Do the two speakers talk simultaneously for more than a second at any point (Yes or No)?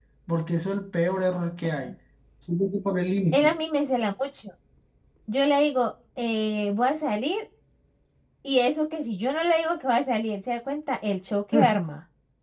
No